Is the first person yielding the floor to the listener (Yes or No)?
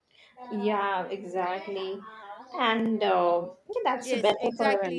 Yes